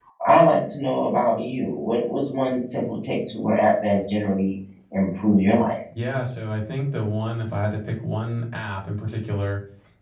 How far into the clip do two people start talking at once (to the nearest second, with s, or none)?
none